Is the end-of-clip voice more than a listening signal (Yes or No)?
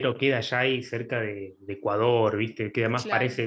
No